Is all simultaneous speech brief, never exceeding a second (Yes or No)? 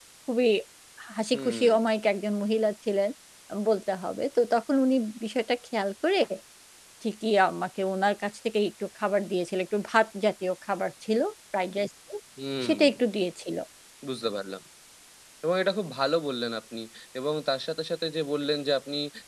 Yes